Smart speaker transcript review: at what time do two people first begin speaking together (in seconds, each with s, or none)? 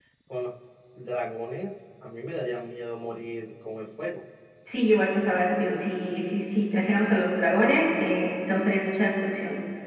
none